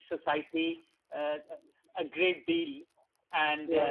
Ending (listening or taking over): listening